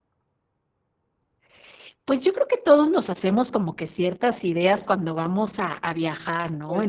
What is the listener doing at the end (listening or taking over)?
listening